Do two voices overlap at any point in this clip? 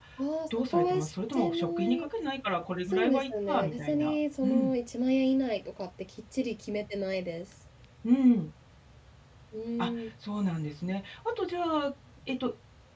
Yes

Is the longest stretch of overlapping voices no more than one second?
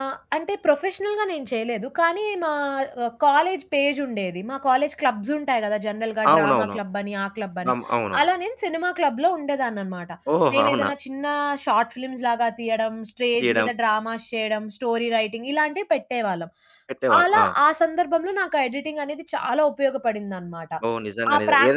Yes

